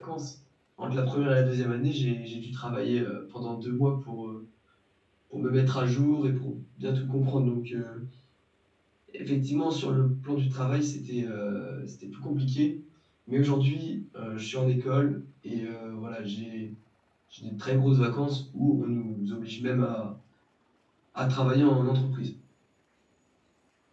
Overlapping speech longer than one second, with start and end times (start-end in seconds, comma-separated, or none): none